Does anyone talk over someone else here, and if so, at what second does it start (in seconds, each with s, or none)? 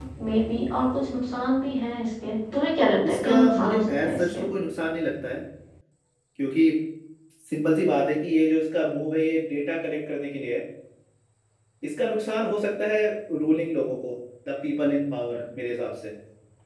3.0 s